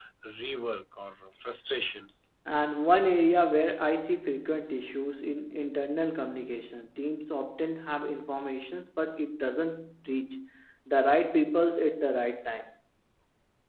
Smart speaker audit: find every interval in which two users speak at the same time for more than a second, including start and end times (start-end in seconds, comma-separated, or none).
none